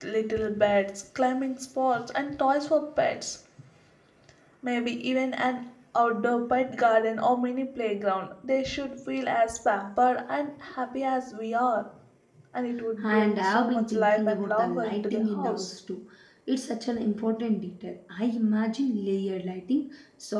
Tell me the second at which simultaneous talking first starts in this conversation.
13.0 s

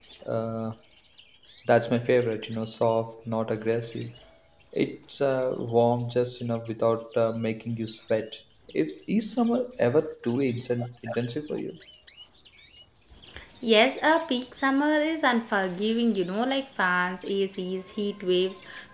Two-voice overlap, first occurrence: none

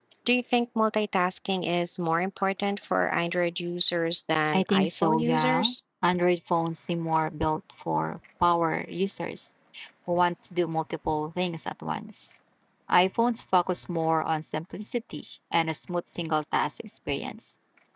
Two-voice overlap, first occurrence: 4.5 s

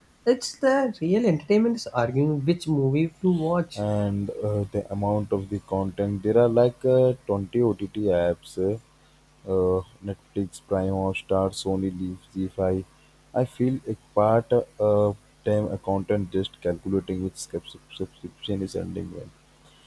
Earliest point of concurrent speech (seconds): none

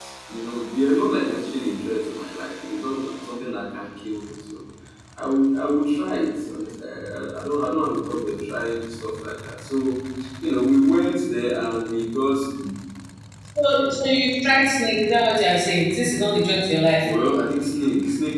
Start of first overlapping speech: none

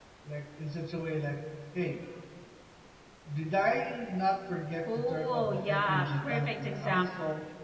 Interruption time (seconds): 4.9 s

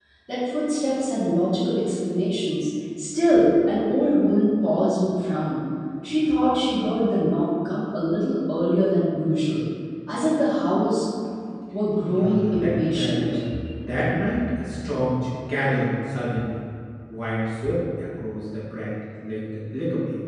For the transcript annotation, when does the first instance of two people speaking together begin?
12.1 s

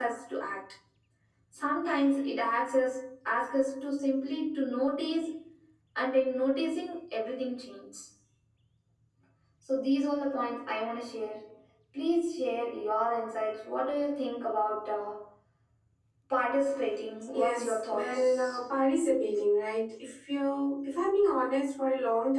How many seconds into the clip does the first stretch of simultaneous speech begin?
17.3 s

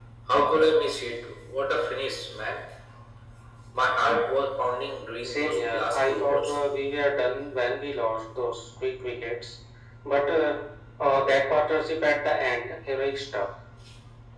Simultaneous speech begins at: 5.2 s

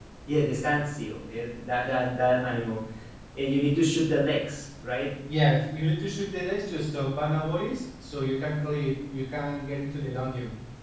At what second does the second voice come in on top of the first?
none

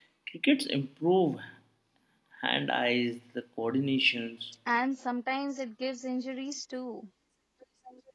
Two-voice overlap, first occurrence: none

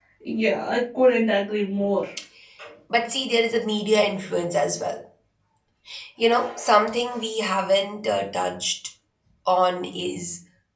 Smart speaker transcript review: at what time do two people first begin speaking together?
none

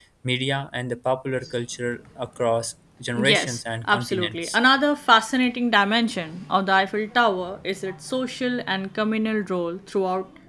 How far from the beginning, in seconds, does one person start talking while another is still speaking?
3.2 s

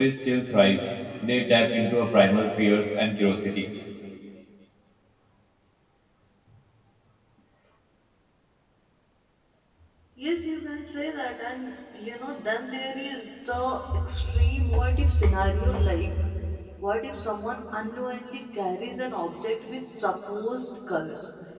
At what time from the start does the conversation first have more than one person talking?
none

